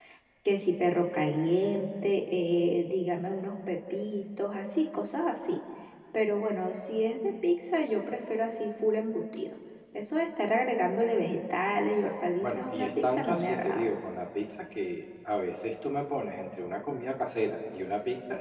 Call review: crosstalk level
present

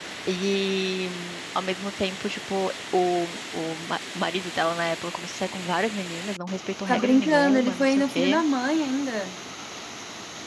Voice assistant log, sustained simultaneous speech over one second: present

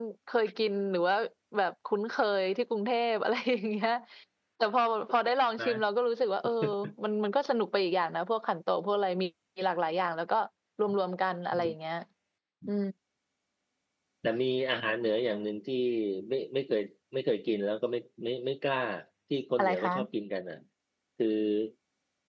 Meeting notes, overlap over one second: none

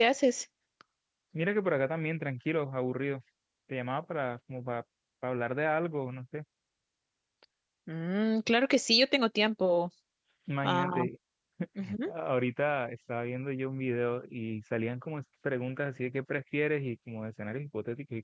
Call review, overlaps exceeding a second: none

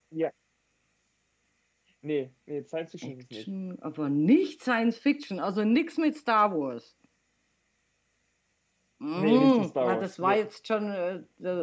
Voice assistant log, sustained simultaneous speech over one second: present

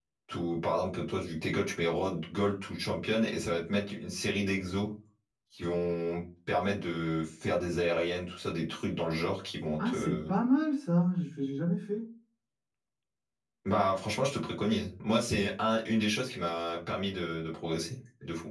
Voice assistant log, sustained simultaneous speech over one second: none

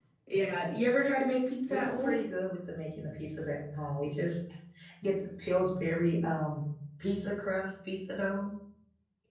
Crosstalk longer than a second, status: none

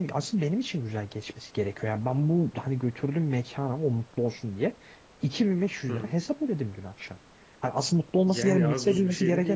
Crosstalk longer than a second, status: present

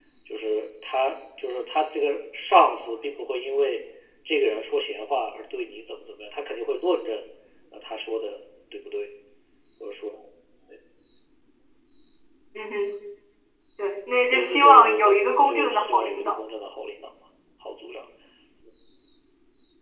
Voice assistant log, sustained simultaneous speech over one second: present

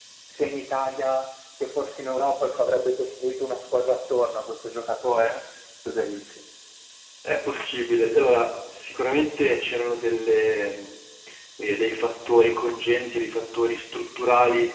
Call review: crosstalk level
none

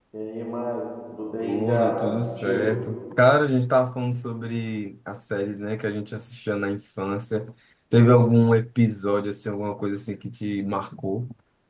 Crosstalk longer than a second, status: present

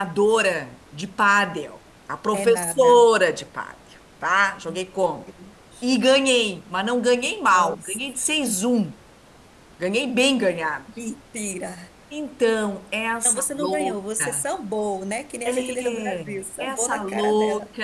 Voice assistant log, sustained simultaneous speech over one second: present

